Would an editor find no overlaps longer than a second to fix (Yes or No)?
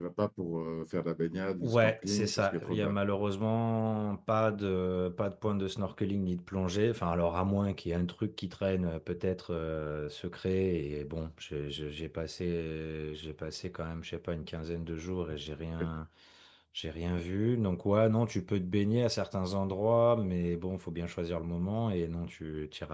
No